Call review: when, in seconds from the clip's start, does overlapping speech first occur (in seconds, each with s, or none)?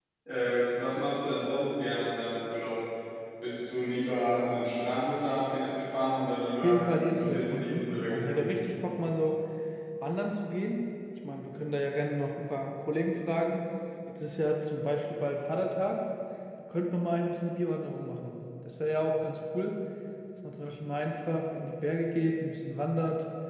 6.6 s